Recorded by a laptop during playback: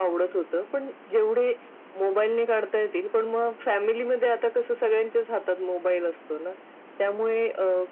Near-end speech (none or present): none